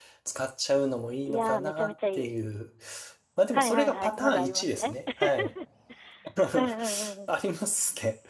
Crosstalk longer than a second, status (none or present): present